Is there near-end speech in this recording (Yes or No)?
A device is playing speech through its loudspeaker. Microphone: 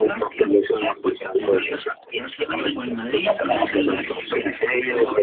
Yes